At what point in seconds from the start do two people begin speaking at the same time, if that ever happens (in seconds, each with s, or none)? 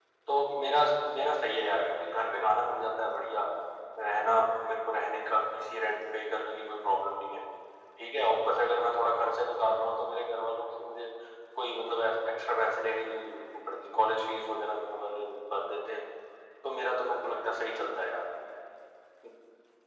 none